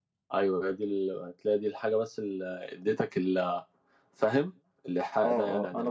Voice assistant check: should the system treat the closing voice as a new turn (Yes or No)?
Yes